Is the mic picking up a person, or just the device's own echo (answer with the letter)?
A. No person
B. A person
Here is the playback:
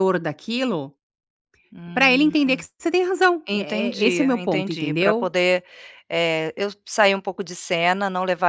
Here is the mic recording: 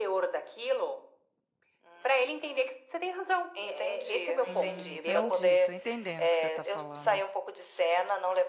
B